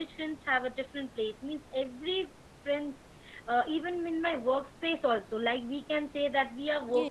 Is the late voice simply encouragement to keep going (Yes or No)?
No